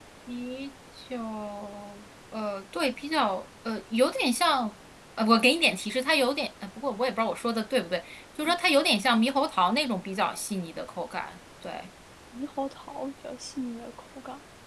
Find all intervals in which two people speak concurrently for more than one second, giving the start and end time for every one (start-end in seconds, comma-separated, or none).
none